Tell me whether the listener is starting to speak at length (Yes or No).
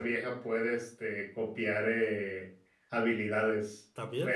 No